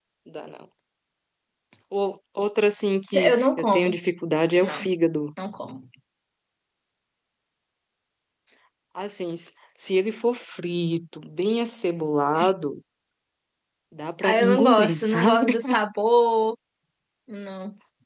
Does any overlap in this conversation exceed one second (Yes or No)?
Yes